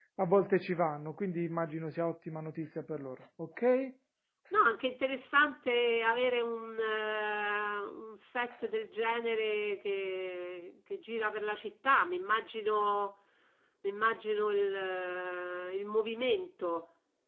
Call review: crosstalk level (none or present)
none